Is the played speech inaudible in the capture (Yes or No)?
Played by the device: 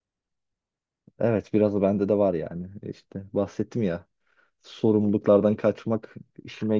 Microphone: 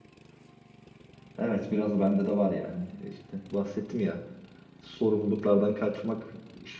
No